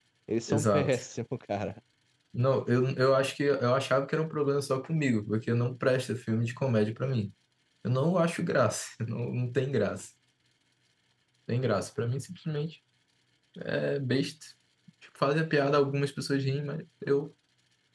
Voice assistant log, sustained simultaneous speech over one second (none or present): none